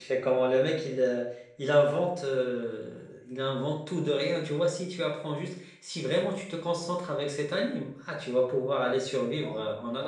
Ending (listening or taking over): taking over